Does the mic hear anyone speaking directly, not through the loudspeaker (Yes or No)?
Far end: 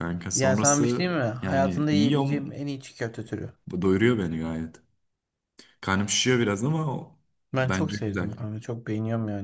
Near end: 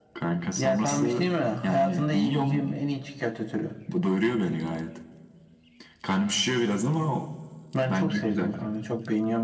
No